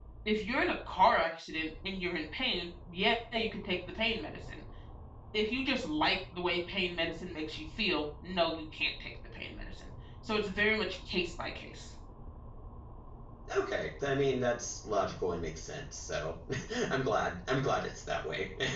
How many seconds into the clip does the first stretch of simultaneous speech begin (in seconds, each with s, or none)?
none